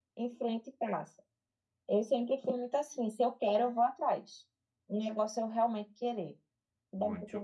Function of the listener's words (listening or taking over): taking over